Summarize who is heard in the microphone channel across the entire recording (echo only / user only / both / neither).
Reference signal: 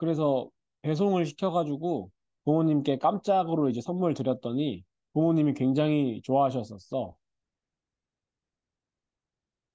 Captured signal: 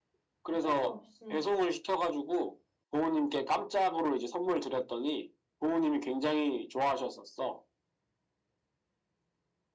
both